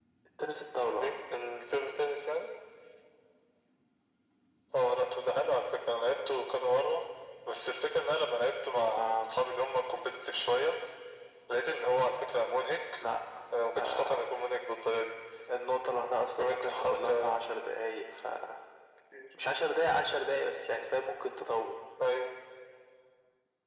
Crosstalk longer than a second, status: present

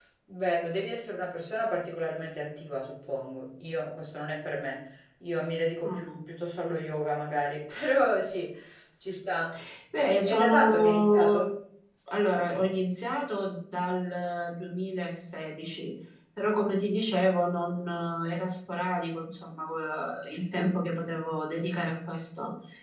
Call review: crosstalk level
present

